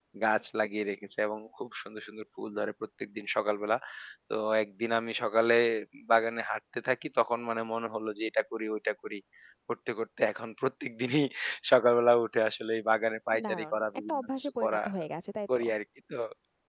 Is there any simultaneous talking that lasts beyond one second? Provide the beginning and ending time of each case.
13.4-14.8

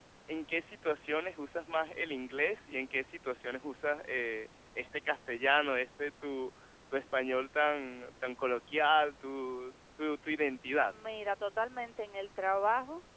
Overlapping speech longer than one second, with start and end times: none

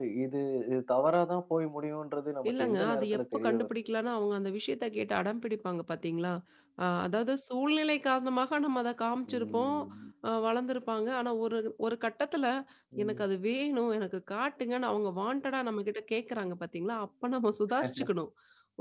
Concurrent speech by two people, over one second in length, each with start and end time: 2.5-3.7

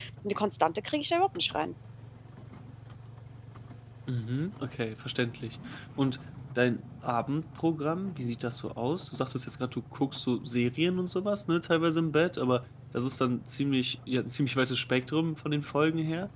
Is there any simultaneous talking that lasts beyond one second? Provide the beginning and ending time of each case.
none

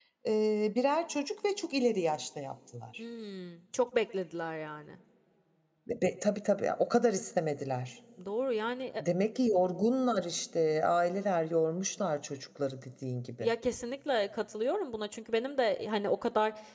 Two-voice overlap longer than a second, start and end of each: none

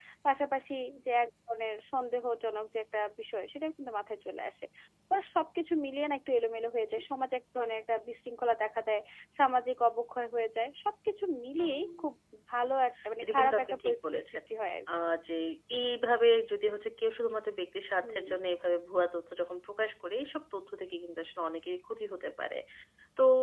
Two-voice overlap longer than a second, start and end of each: 13.2-14.4

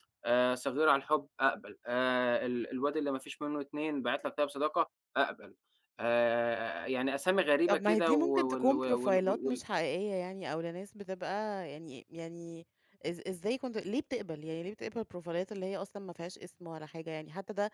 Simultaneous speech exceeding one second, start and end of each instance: 7.7-9.6

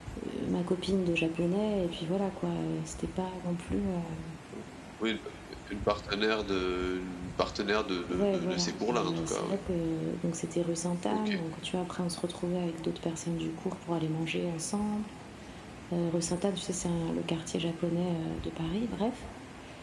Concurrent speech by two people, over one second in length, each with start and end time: 8.1-9.6

